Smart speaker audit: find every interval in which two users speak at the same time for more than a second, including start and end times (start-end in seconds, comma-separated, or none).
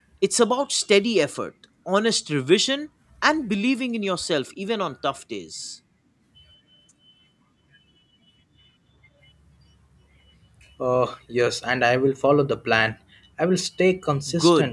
none